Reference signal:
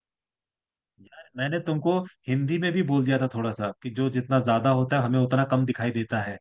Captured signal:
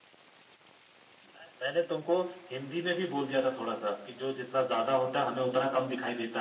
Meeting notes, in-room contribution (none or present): none